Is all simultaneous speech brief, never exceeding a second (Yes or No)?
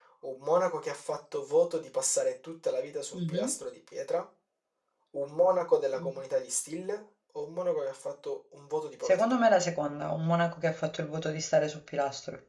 Yes